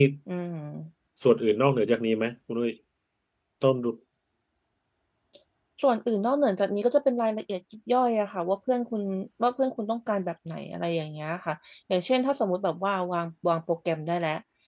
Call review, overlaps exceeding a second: none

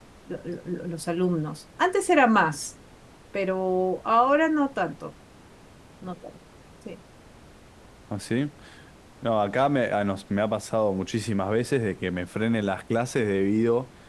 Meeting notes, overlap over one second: none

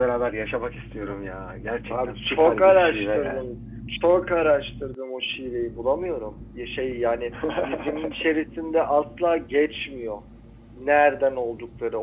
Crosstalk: present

